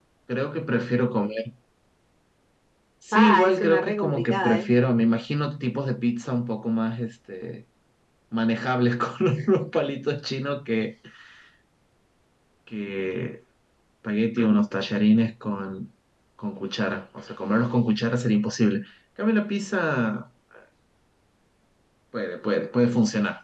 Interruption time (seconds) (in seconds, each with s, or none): 3.1 s